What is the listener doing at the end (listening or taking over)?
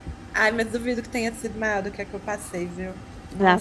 taking over